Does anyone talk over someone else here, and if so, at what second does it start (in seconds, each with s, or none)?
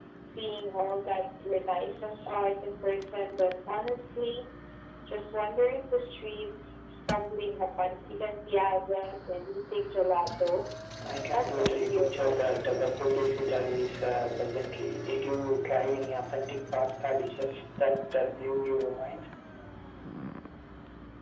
11.3 s